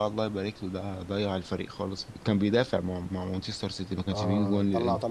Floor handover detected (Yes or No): Yes